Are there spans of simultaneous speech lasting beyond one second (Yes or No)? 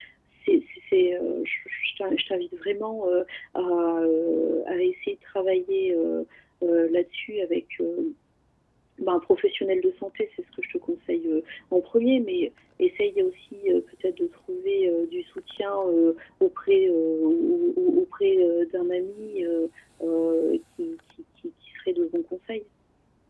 No